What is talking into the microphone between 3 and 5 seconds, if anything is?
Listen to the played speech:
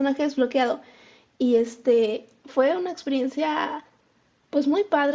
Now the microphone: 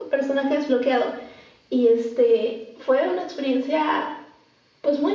echo only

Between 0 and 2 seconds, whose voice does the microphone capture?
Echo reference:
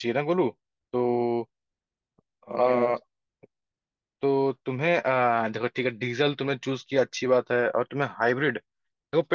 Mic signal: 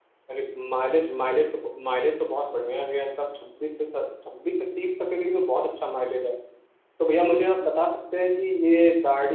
user only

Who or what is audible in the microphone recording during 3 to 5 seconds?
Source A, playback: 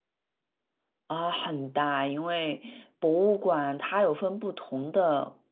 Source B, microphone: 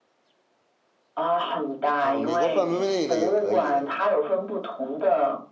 both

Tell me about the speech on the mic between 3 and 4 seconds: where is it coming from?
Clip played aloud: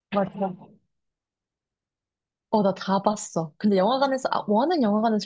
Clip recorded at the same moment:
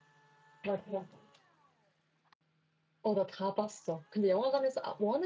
echo only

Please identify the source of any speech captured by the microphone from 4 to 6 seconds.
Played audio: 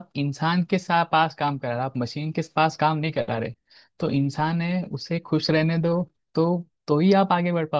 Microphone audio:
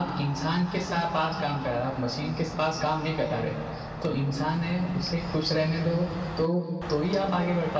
echo only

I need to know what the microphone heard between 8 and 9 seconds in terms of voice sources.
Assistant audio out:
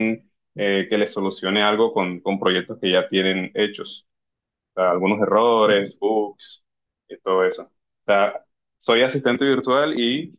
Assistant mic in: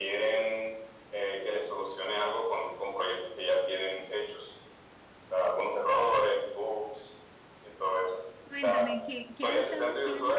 both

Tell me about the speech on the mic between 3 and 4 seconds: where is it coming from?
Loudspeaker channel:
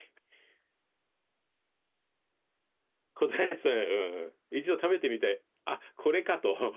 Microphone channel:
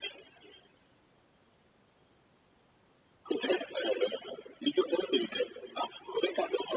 echo only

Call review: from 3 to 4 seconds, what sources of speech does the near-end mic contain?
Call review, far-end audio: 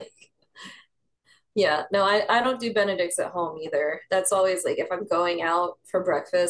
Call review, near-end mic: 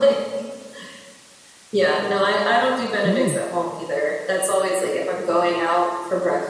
both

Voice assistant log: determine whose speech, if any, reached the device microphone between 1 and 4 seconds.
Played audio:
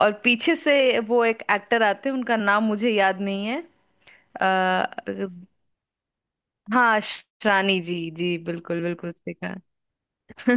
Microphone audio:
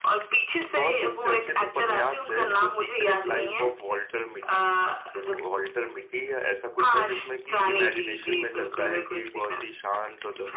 both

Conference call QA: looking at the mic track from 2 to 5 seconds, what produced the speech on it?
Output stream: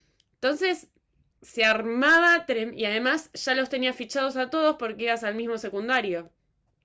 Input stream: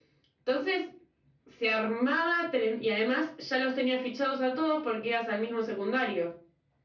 echo only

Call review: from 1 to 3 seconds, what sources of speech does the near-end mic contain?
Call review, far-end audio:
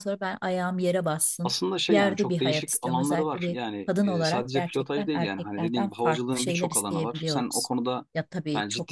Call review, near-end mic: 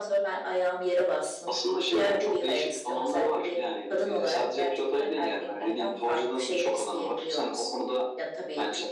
echo only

